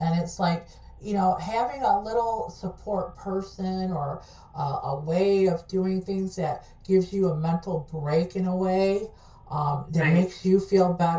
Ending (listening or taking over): listening